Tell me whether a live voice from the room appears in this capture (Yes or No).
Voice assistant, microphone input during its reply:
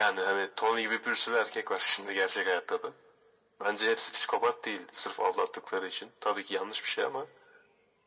No